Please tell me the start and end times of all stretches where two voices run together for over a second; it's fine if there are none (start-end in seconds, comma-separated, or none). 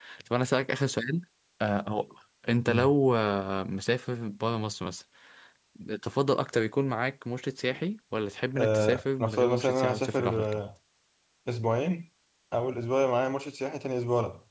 8.6-10.6